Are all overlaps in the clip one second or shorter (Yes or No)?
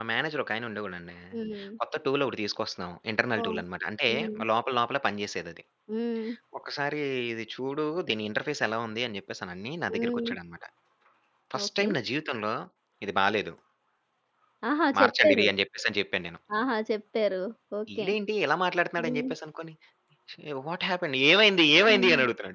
Yes